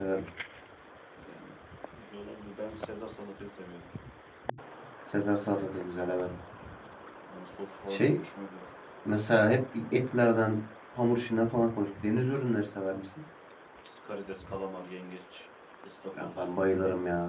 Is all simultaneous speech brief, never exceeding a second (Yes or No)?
Yes